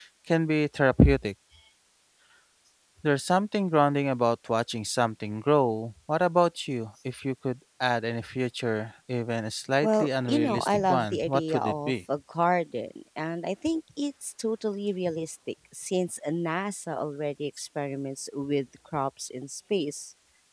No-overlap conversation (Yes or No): No